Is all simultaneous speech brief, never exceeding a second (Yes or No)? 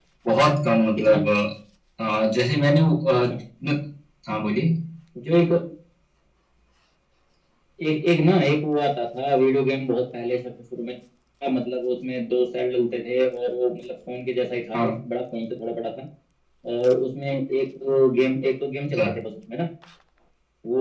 Yes